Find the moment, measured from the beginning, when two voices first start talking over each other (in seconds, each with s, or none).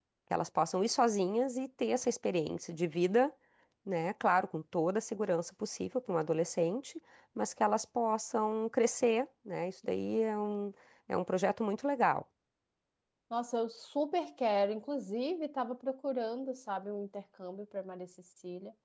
none